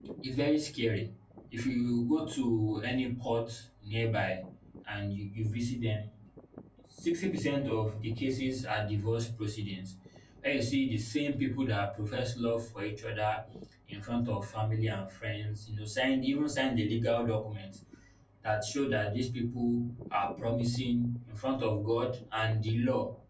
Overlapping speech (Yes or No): No